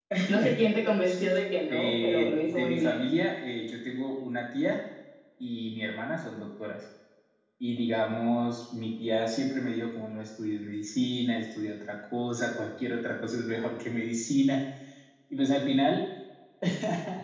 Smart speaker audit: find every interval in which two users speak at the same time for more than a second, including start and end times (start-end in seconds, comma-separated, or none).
1.7-3.0